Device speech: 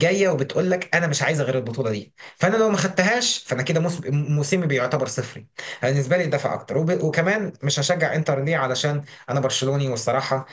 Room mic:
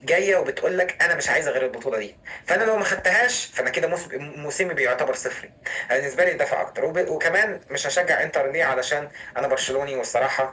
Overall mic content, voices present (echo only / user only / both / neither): echo only